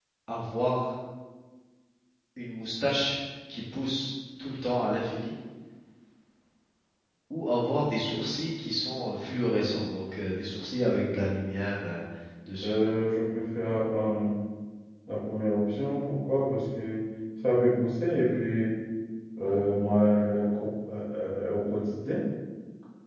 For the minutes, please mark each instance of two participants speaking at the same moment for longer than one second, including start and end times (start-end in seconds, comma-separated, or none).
none